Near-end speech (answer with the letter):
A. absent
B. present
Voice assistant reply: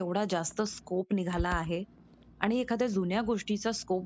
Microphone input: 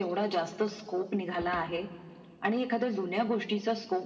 A